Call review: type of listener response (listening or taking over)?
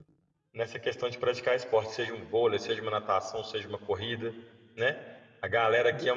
listening